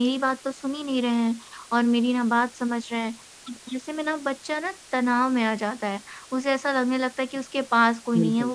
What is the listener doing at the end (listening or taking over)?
listening